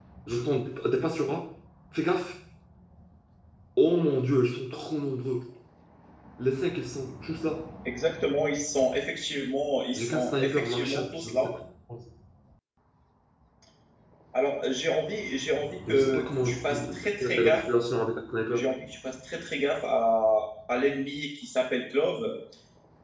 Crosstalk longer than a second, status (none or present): present